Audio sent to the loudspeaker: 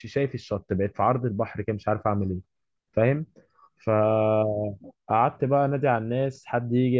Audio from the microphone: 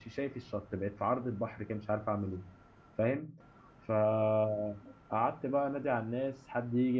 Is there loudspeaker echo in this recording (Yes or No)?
Yes